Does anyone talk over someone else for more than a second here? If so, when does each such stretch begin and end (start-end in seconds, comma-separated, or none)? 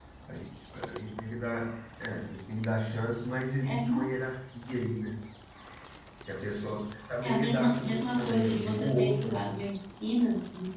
7.2-9.6